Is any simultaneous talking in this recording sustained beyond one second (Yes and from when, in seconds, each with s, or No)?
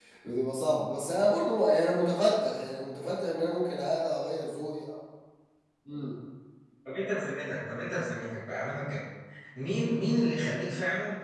No